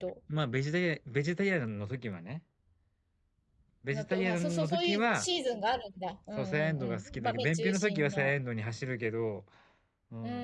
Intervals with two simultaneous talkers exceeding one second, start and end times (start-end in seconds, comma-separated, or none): 3.9-5.3, 6.4-8.3